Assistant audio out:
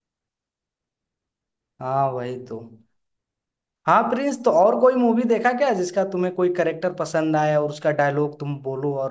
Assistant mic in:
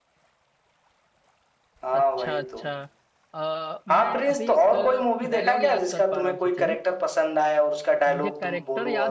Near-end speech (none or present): present